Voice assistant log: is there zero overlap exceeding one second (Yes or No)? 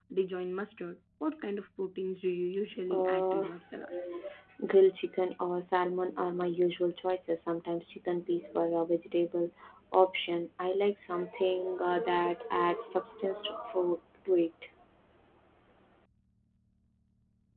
Yes